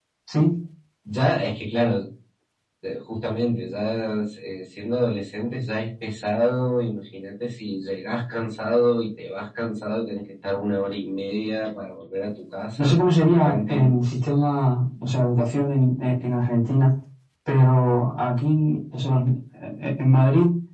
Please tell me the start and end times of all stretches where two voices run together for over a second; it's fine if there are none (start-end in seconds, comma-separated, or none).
12.8-14.0